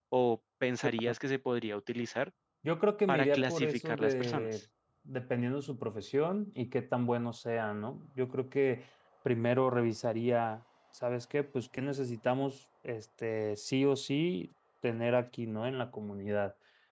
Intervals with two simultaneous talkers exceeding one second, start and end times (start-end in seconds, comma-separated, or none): 3.1-4.6